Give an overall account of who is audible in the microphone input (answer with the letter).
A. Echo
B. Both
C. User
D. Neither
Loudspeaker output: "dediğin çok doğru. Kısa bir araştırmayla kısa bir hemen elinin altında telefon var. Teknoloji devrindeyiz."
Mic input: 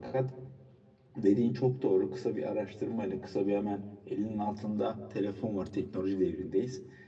A